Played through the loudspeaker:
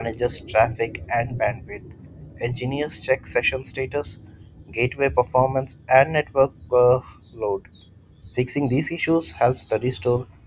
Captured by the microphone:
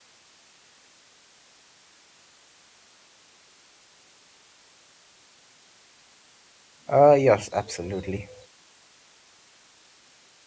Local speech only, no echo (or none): Uh, yes, absolutely.